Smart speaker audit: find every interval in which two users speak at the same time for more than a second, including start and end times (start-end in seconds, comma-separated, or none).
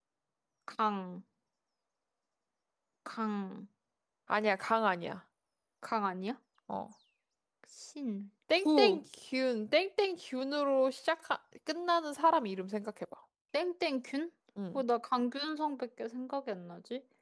none